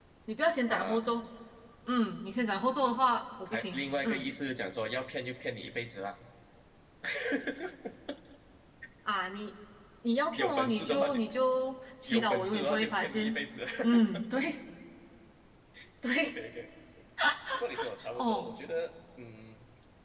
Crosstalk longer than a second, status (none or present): present